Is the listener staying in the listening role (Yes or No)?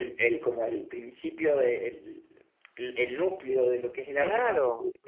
No